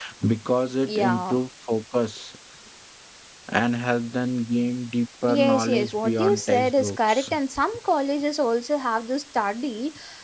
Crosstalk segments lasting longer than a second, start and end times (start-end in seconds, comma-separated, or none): 5.3-7.3